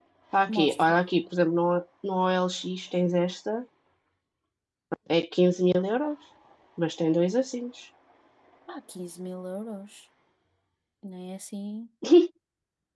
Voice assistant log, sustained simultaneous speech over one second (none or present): none